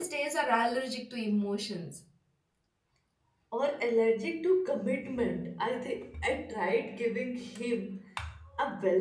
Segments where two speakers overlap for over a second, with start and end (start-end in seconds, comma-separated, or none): none